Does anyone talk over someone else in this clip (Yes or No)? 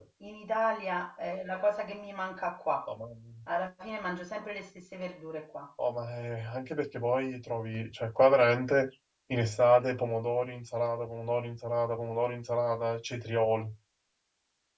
No